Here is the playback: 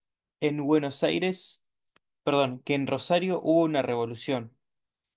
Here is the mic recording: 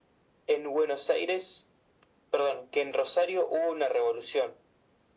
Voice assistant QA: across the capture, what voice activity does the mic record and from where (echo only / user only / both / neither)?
echo only